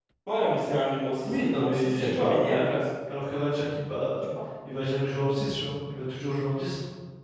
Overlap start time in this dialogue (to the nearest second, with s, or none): 1 s